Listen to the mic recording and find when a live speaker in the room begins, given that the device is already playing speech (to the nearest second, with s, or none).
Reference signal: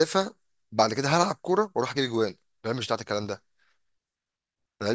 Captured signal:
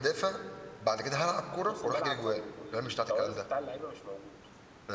2 s